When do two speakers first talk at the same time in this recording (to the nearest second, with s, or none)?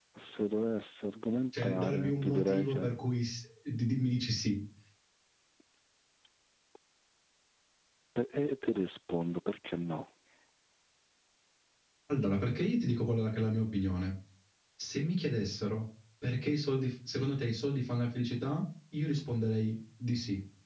2 s